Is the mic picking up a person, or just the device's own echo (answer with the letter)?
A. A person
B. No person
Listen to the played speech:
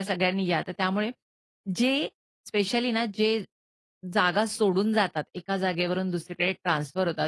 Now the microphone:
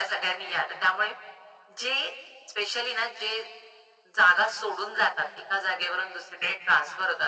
B